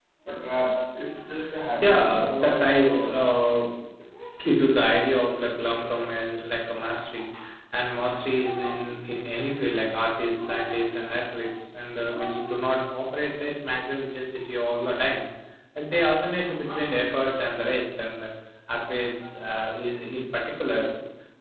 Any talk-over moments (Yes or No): Yes